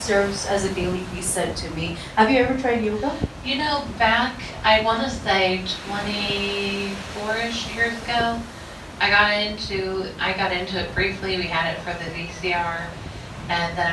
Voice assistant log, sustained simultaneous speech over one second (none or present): none